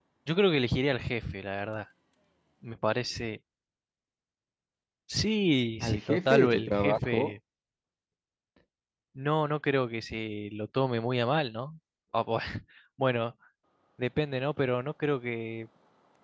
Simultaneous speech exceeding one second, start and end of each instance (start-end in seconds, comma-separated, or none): 5.8-7.3